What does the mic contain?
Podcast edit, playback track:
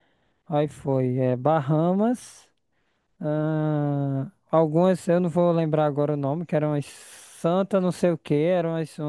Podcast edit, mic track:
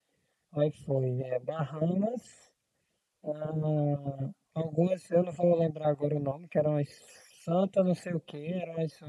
echo only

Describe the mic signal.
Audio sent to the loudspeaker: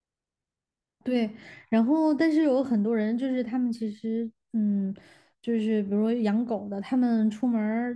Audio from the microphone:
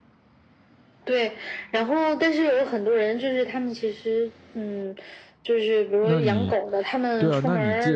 both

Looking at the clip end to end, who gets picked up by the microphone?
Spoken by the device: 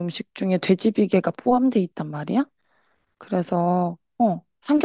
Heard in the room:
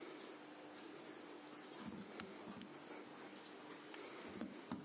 neither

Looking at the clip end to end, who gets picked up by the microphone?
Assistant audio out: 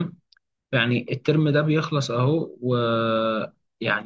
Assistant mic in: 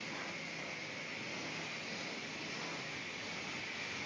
neither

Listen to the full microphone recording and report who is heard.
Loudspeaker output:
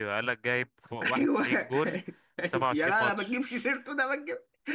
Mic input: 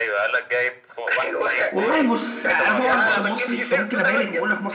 both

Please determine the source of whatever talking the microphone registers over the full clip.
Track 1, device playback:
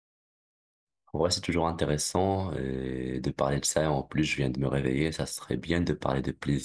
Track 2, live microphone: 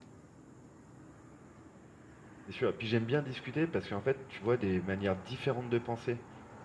user only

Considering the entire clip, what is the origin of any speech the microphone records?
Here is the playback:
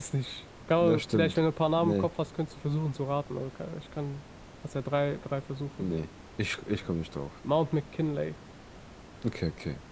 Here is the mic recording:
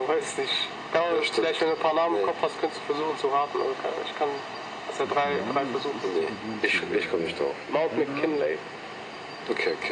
both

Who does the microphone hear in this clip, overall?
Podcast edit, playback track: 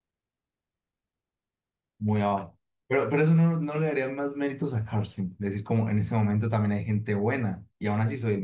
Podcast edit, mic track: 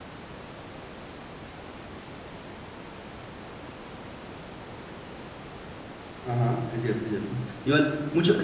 user only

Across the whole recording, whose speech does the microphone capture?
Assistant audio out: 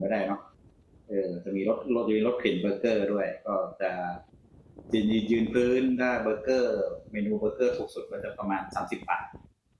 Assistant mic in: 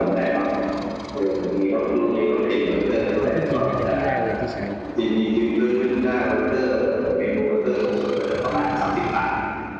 both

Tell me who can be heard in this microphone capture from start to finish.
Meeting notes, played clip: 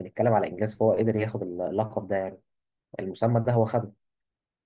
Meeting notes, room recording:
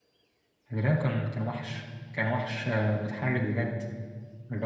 user only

